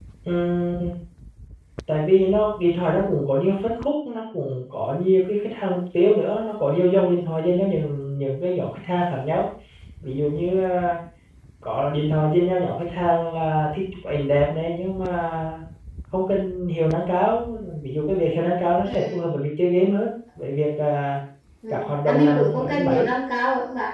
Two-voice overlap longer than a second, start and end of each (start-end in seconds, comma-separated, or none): 21.7-23.1